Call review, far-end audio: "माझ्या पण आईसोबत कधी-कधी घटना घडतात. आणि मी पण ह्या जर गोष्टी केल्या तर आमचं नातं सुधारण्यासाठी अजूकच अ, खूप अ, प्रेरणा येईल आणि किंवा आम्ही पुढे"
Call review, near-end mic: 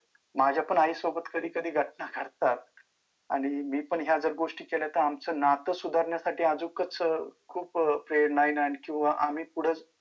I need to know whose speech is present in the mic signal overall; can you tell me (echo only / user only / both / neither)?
echo only